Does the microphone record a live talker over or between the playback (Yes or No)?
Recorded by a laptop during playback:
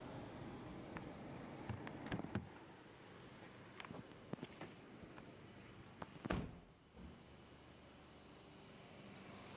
No